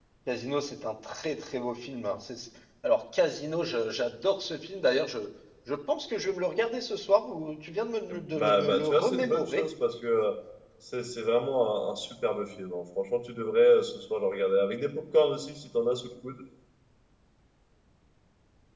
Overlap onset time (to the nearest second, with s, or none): 8 s